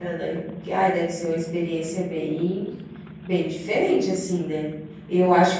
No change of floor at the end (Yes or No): Yes